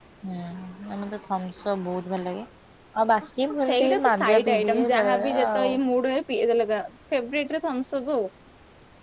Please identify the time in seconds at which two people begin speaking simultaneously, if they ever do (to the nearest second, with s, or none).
4 s